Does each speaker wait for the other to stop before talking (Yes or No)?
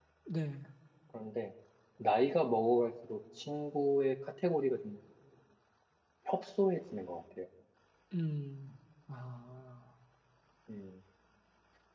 Yes